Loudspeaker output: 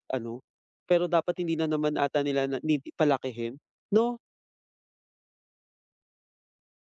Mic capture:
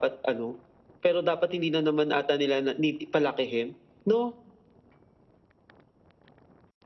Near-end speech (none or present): none